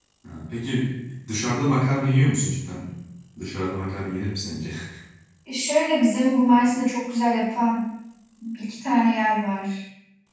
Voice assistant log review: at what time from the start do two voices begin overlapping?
none

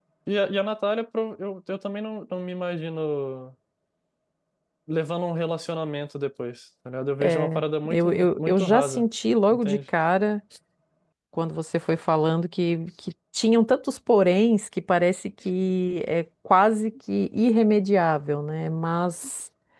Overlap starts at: 7.2 s

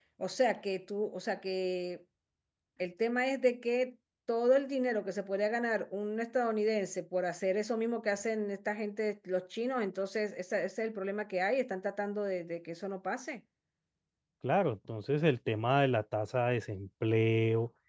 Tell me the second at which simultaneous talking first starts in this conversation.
none

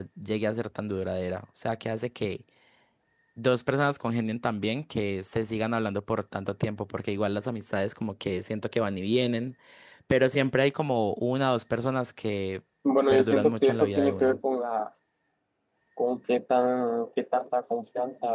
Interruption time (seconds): 13.1 s

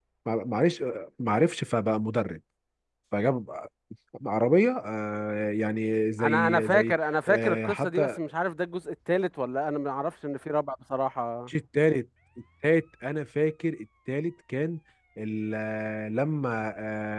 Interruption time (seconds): 6.2 s

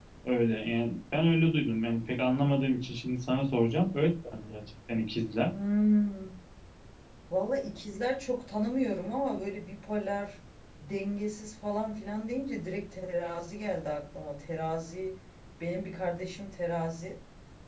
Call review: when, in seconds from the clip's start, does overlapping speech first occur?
none

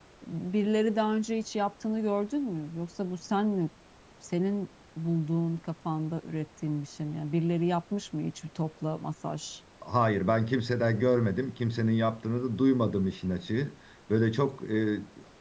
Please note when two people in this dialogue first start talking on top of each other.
none

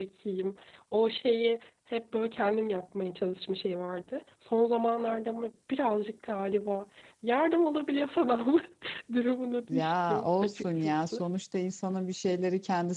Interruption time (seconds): 9.7 s

